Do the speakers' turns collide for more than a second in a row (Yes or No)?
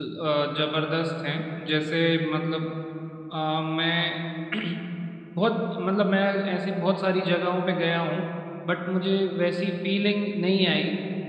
No